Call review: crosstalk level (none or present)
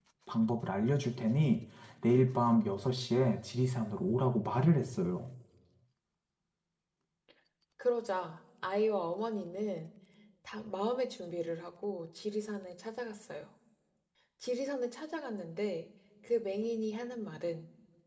none